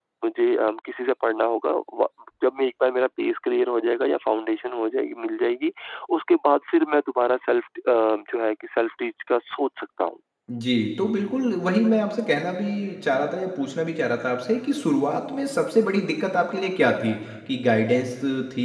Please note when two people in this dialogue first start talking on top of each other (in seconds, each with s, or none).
none